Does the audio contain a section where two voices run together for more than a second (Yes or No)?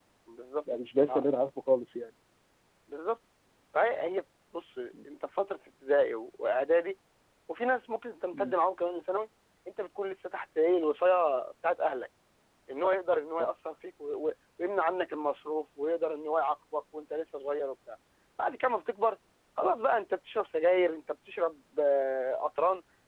No